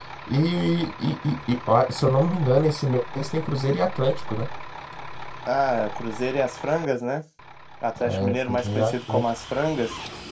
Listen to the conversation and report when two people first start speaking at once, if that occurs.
8.0 s

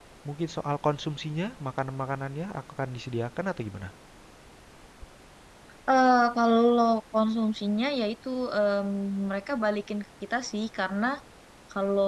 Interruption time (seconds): none

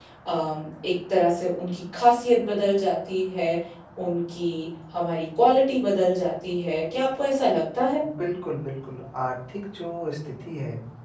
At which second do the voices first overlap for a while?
none

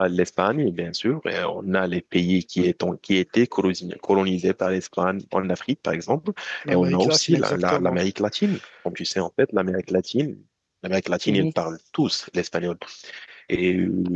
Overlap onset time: 6.7 s

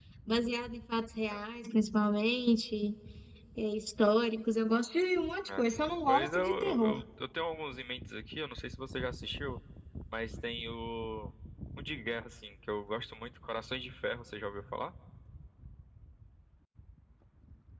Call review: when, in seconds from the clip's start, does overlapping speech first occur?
5.5 s

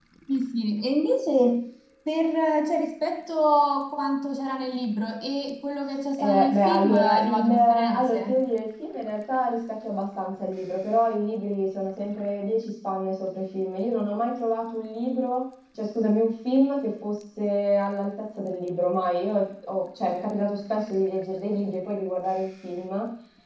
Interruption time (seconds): 6.2 s

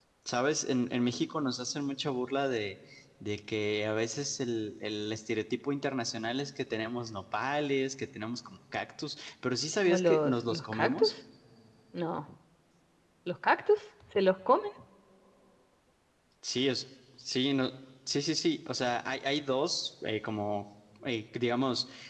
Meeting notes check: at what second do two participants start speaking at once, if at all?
9.8 s

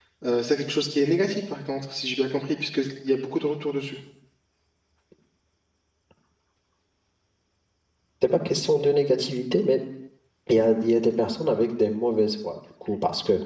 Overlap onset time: none

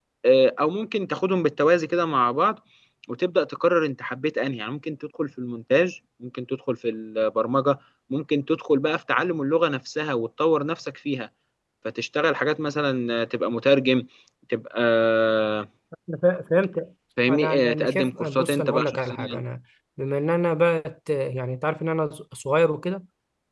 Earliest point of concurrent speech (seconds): 17.2 s

